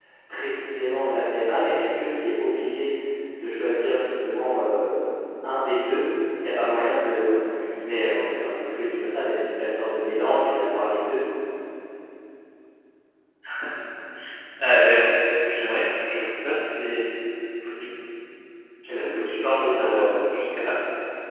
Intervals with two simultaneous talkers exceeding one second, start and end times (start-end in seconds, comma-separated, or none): 18.9-20.1